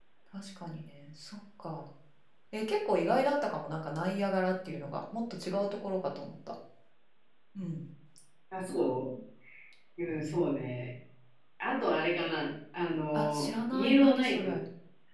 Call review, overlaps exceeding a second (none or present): present